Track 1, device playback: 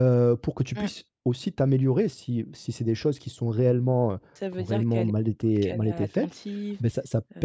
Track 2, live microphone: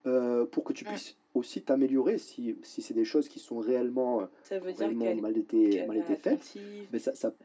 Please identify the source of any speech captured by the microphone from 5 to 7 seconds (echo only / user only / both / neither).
echo only